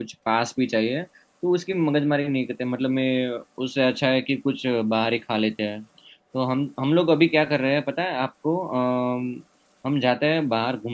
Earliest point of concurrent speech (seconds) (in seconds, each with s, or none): none